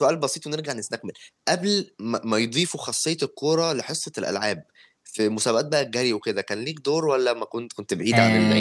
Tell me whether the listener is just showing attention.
No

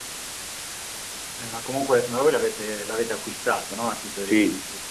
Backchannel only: No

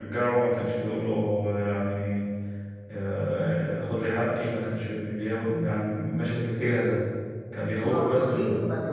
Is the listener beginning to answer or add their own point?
Yes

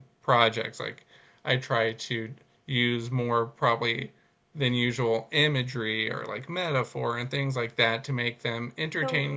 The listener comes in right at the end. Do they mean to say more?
Yes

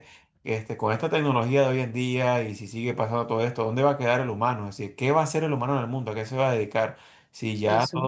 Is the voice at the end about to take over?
No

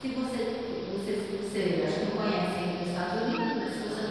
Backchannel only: Yes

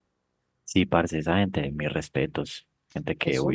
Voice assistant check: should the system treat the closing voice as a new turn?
Yes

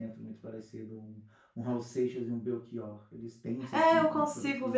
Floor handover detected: Yes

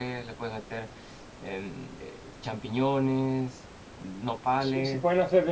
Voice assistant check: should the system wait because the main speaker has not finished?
No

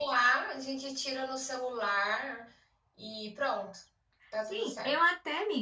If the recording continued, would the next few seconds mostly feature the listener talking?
Yes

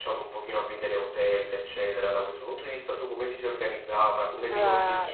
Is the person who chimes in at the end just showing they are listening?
No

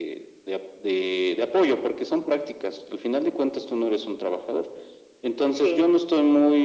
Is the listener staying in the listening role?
Yes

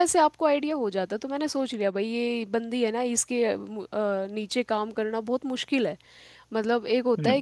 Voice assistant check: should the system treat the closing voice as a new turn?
No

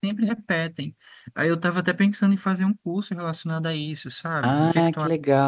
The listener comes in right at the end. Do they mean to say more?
Yes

